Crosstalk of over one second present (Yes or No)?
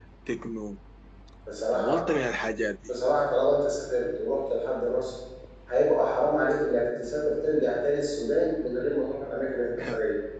No